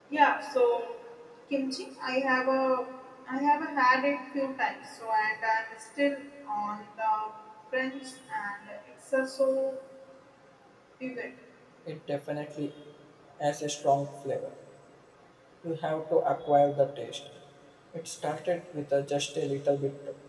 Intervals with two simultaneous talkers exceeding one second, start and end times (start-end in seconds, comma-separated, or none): none